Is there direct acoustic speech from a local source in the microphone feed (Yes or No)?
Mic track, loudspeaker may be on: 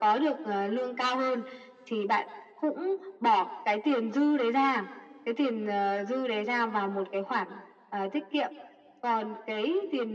No